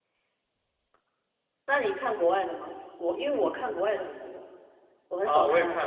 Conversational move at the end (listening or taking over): taking over